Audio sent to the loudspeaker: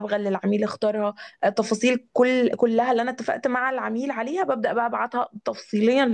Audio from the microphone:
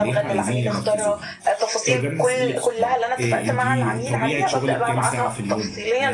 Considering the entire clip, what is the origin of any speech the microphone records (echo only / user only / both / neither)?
both